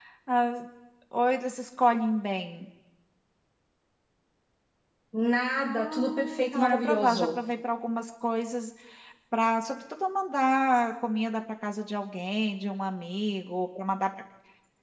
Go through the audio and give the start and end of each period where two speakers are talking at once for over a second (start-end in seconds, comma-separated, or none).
5.7-7.3